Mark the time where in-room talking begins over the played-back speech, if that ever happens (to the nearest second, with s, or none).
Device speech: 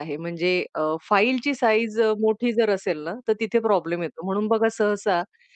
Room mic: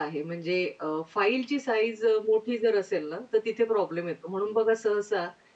none